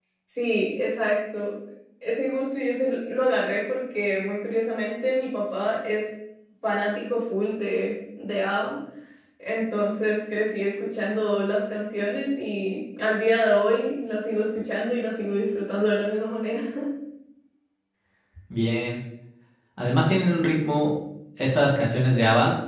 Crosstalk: none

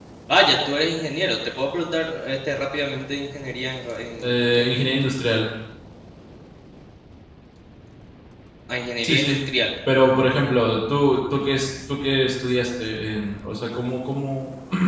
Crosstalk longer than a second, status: none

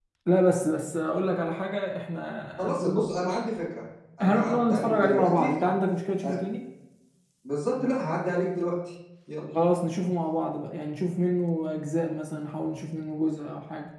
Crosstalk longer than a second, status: present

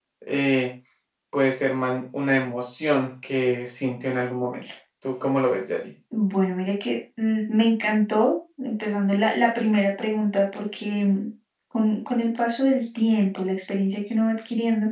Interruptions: none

